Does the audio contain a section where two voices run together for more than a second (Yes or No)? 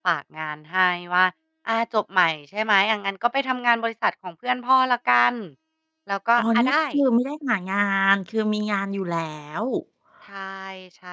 No